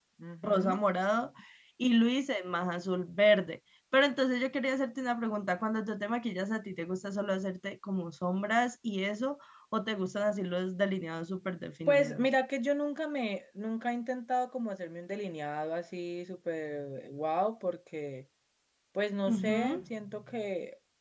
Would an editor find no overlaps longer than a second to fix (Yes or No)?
Yes